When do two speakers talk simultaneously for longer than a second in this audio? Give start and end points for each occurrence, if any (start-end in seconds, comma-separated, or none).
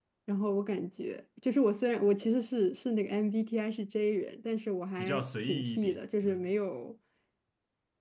5.0-6.5